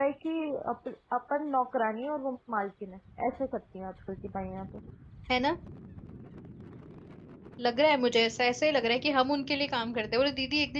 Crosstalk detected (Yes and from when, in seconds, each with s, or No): No